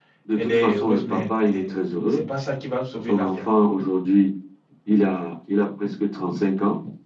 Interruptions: present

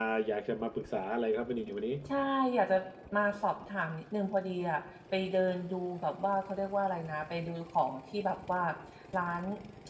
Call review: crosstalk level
none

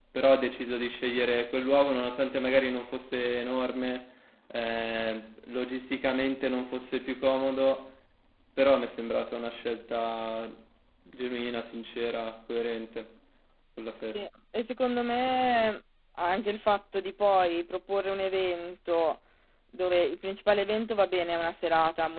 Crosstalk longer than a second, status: none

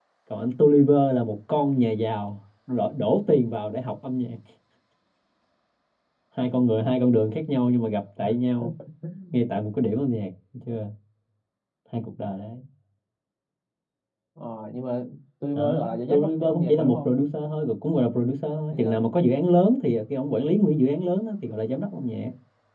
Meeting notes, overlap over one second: present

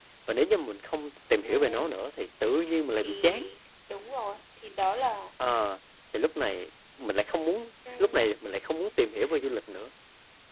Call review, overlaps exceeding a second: none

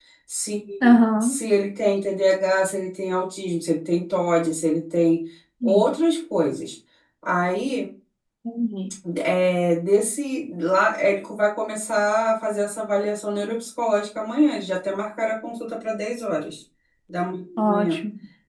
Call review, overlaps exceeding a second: none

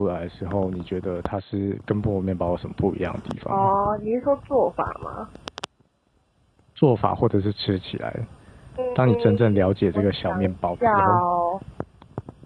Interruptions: present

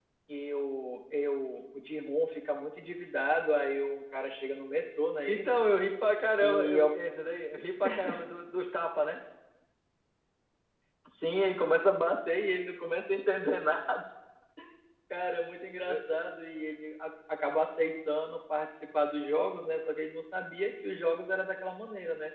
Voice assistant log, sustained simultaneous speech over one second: none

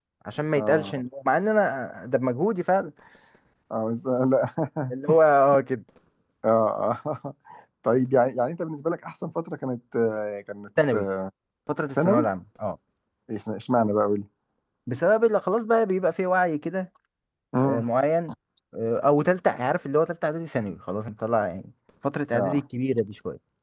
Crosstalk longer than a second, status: none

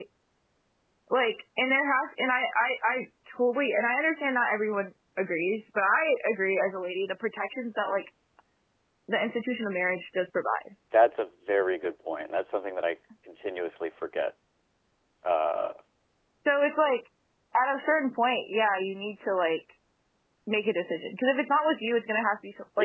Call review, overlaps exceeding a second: none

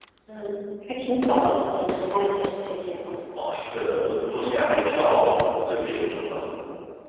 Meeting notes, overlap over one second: none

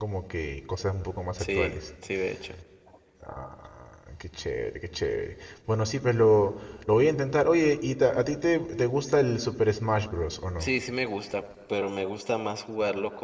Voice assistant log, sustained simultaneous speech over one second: none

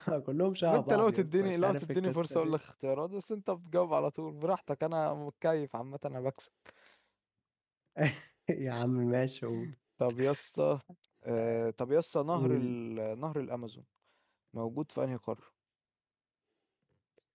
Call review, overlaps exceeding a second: present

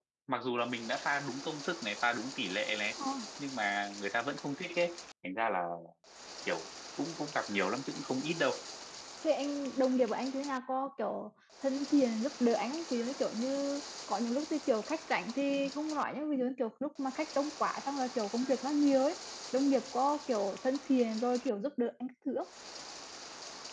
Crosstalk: none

